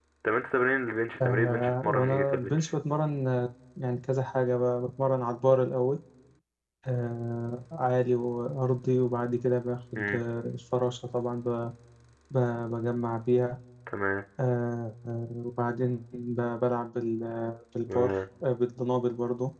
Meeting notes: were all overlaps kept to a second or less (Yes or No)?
No